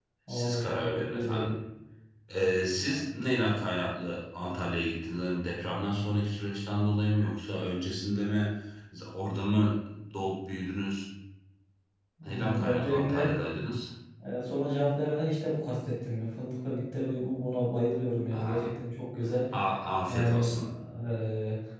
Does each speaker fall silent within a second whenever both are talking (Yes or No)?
No